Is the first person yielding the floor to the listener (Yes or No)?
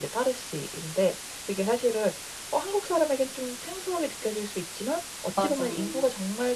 No